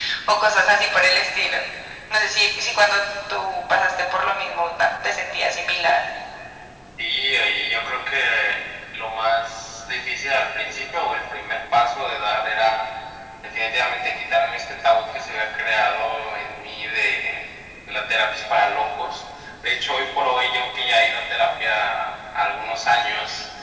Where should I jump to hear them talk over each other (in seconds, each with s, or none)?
none